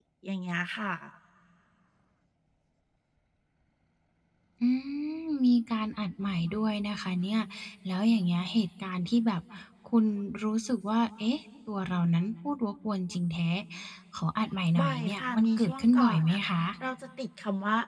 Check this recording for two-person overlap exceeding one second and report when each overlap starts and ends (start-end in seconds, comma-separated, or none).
14.8-16.4